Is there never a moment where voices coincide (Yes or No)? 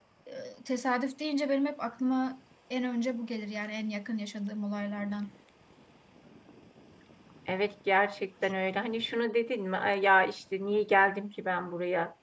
Yes